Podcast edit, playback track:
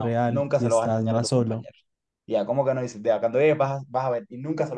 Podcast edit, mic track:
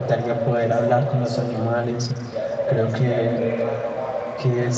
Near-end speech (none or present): present